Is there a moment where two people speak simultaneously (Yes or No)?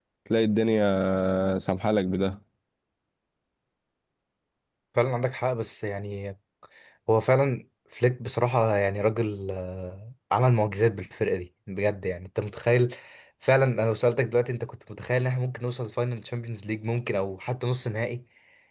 No